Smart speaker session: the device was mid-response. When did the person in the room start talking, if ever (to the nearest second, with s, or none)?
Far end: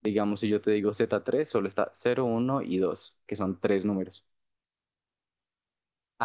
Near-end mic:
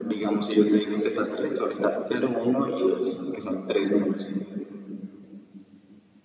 none